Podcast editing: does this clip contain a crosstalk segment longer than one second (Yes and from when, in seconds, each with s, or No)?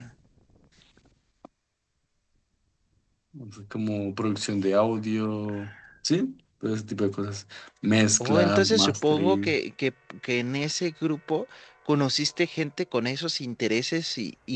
Yes, from 8.2 s